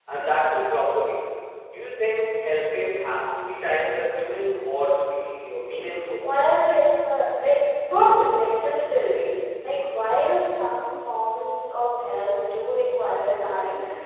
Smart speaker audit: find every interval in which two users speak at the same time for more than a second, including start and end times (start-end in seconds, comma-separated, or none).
none